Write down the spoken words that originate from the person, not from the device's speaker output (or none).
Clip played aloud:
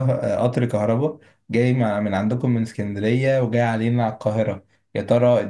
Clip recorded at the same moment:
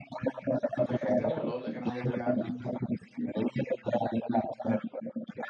عندك حاجه تانية ولا اقول لك انا حاجه تانية عن عندي